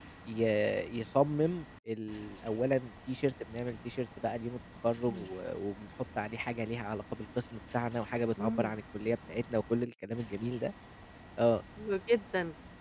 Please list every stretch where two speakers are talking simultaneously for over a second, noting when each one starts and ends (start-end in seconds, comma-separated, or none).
none